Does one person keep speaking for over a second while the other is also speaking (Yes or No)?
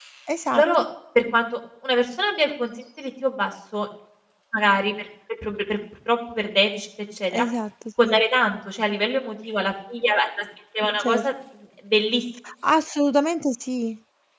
No